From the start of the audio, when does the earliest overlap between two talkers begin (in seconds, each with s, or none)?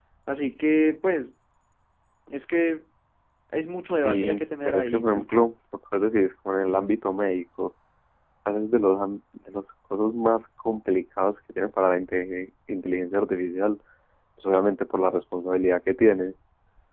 3.9 s